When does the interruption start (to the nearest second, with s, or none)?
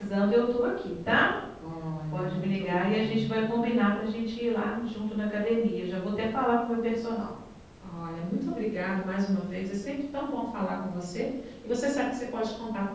2 s